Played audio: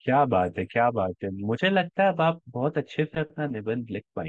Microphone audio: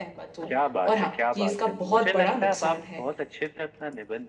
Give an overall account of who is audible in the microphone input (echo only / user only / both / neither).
both